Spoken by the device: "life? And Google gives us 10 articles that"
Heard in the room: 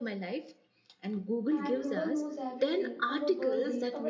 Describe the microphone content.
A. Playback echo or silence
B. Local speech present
B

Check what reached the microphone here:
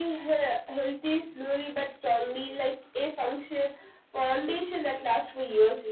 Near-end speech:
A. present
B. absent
B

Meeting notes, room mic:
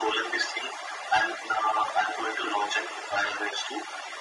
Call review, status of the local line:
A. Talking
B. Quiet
B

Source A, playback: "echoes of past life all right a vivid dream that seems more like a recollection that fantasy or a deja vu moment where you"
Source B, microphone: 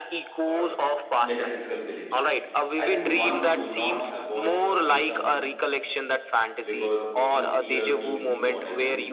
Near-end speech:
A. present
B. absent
A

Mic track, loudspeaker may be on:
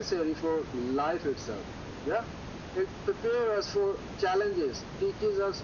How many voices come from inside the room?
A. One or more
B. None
B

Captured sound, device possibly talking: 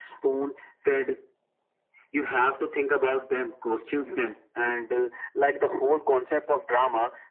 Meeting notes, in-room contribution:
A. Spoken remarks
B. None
B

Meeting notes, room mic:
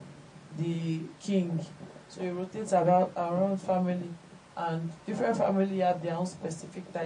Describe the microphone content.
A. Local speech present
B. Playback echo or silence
B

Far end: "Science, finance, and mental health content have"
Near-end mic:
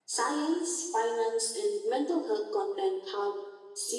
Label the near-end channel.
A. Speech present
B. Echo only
B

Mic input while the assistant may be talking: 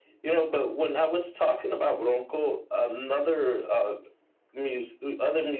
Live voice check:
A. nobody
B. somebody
A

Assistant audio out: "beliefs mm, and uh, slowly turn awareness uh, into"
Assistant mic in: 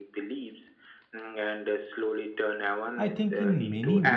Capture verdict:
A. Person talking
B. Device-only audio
A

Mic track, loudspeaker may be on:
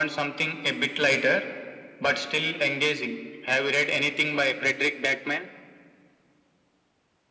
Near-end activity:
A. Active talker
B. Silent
B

